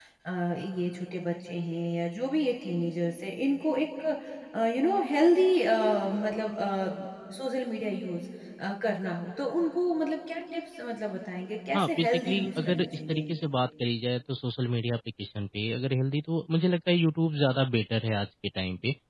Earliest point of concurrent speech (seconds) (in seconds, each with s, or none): 11.7 s